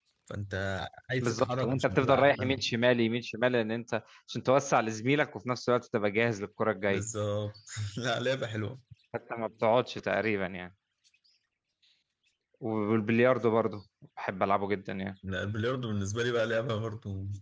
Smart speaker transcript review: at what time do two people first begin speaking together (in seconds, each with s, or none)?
1.2 s